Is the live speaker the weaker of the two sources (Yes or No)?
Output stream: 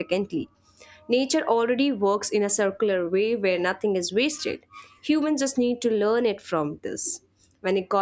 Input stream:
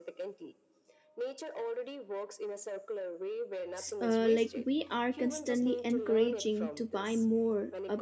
No